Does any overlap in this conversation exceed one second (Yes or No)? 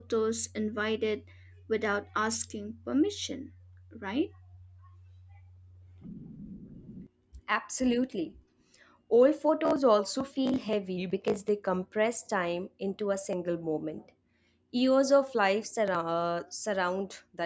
No